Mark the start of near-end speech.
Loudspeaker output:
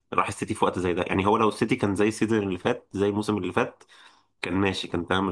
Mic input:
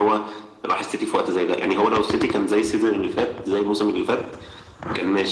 none

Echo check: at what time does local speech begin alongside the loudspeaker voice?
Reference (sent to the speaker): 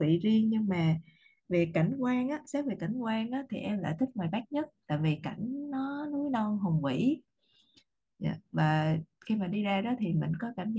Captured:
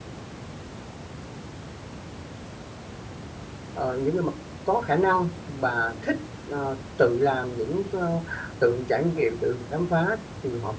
3.7 s

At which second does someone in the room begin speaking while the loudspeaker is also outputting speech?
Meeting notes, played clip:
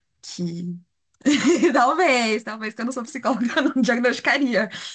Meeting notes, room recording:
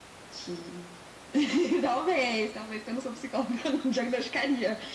none

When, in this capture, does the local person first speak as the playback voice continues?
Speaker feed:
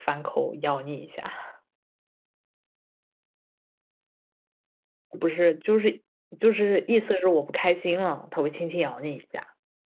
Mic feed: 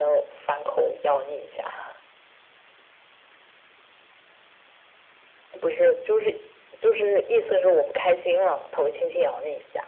none

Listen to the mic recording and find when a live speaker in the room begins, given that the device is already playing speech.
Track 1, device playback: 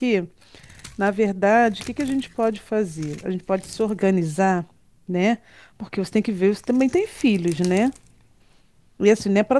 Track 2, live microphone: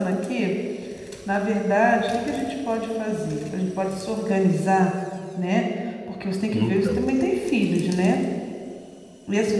6.5 s

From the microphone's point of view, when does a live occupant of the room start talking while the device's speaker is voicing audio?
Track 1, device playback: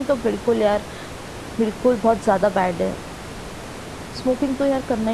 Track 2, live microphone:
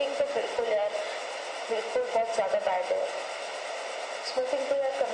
none

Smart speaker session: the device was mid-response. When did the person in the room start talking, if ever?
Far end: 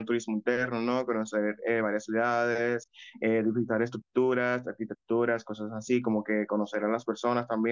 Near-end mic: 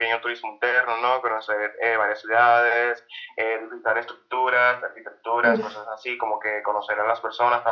5.4 s

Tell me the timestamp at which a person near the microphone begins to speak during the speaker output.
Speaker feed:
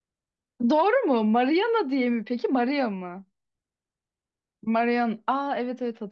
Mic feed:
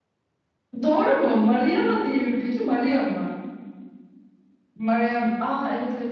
none

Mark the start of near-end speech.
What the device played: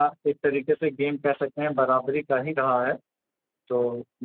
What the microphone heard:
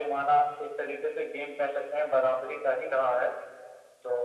none

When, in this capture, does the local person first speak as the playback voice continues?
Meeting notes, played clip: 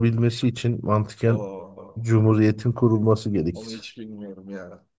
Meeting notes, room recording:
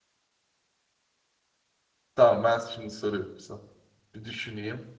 2.1 s

